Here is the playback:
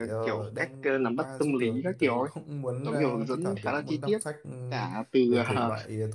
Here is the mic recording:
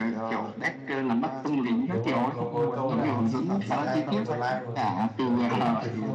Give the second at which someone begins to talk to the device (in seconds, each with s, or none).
1.8 s